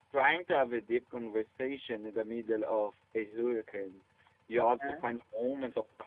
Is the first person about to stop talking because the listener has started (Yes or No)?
No